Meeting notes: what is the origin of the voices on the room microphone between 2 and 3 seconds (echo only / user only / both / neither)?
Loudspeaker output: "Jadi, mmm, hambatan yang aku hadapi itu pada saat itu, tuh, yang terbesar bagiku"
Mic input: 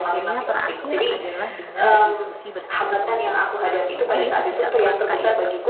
both